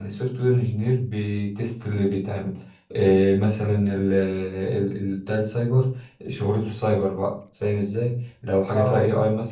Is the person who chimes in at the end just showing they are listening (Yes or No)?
Yes